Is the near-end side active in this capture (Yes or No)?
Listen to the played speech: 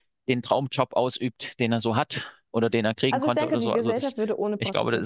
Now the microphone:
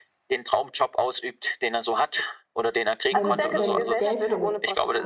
Yes